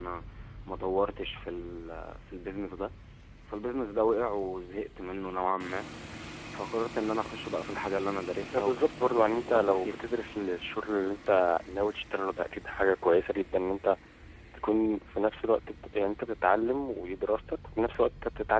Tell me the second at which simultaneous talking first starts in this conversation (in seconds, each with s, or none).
8.5 s